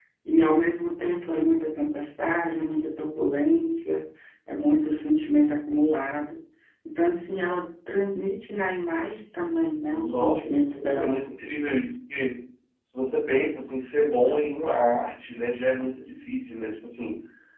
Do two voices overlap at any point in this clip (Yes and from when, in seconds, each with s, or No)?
Yes, from 9.9 s